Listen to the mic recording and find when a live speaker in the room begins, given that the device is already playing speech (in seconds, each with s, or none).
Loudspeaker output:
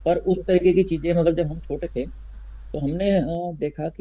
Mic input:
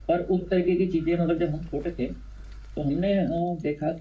none